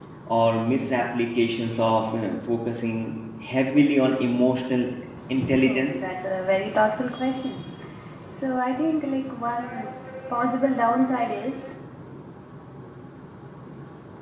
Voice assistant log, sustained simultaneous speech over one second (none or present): none